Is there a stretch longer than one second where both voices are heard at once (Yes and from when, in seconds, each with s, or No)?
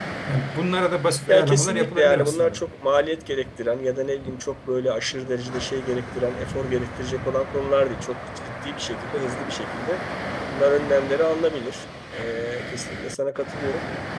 Yes, from 1.3 s